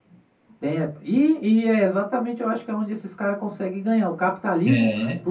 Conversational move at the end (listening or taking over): listening